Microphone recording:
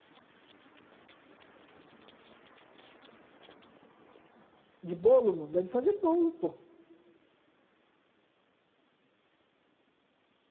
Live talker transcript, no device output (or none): de bolo, mano? Dá de fazer bolo, pô.